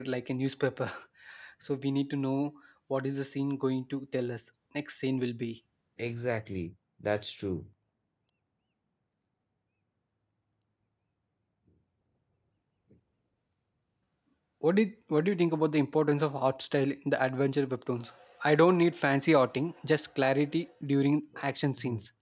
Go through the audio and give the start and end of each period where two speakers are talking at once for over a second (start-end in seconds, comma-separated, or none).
none